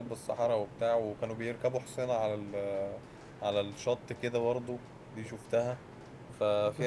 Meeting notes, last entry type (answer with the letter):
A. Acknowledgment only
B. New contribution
A